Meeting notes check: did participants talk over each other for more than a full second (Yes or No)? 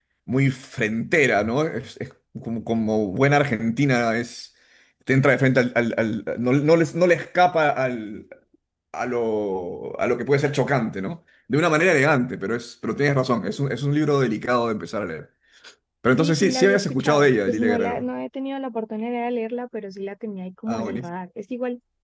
Yes